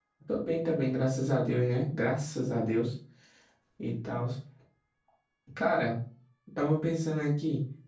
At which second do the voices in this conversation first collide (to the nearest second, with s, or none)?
none